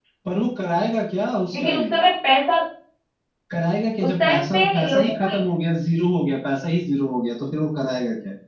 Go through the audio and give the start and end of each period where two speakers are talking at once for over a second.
4.0-5.3

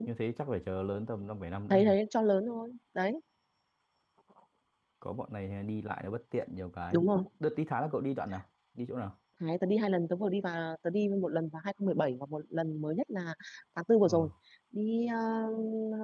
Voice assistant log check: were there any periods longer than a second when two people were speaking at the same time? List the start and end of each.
none

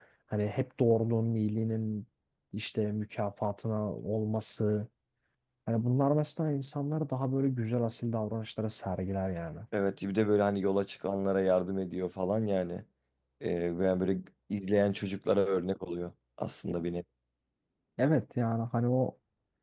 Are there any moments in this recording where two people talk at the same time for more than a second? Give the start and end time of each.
none

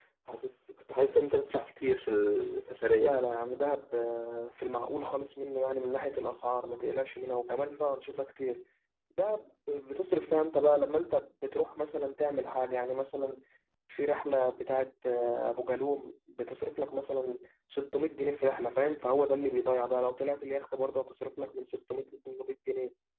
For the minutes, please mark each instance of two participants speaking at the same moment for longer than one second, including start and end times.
none

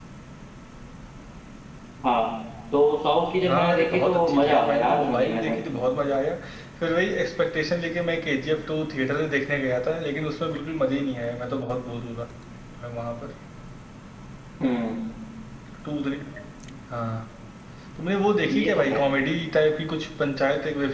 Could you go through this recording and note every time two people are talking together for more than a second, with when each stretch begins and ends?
3.5-5.6

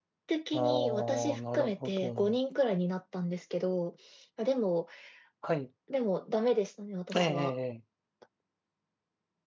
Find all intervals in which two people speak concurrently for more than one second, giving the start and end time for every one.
0.5-2.4

